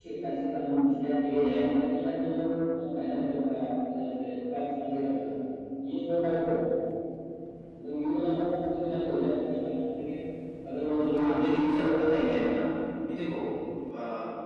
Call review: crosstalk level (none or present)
present